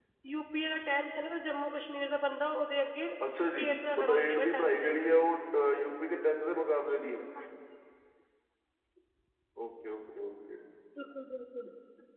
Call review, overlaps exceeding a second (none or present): present